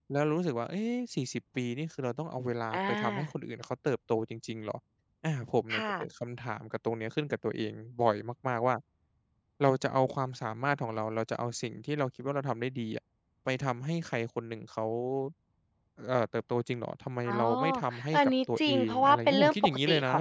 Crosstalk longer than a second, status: present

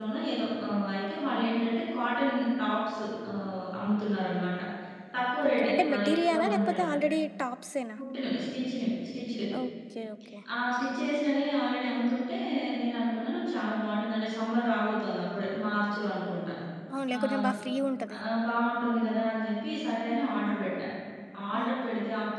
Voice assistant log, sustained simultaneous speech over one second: present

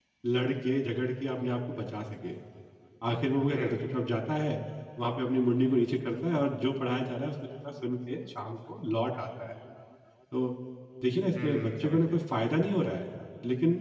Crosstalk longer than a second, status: present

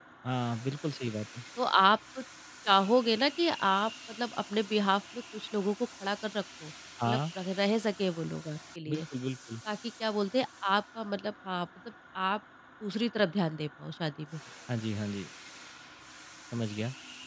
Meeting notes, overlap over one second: none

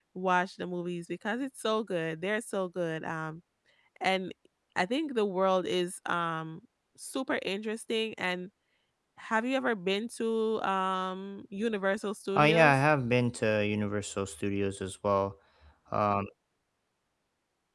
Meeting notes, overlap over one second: none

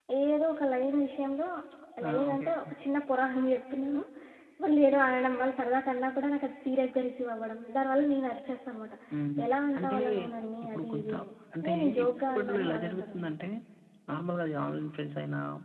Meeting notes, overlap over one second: present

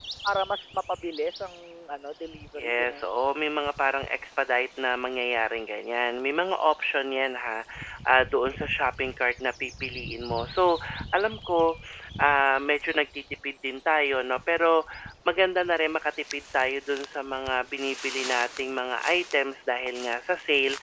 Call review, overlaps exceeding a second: none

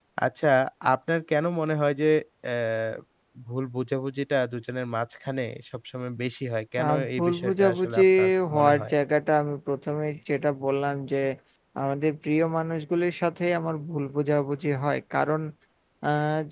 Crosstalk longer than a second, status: present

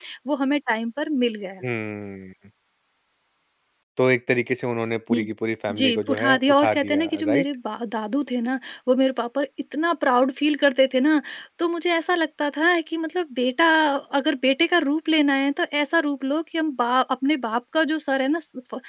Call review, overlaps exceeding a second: present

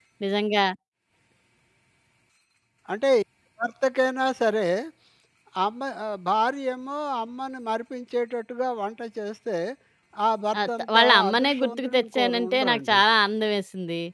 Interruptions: present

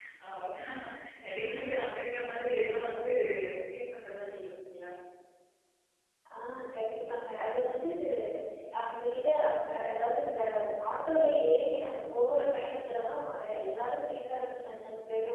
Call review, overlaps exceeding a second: none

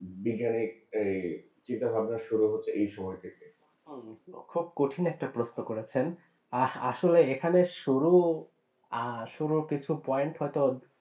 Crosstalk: none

